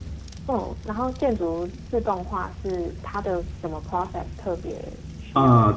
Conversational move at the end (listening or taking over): taking over